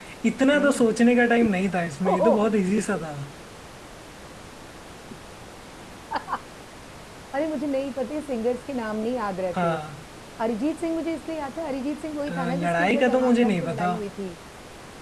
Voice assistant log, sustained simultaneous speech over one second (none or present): present